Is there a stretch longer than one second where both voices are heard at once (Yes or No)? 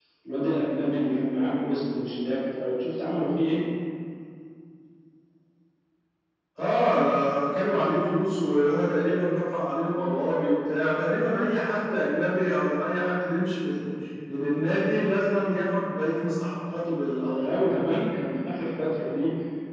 No